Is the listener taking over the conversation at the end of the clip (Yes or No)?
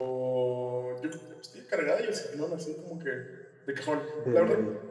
No